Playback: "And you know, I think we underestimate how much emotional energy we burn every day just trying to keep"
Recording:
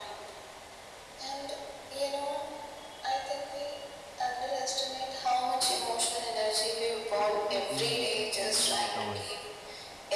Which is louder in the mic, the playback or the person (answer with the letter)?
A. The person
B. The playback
B